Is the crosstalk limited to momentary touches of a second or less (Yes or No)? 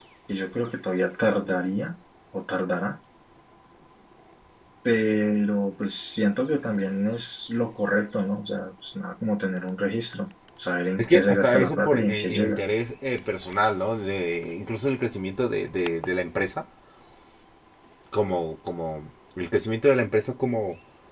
No